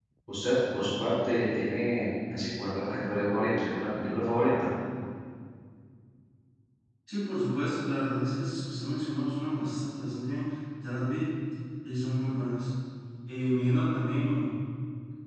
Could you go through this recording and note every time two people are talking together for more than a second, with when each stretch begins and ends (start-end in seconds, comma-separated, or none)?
none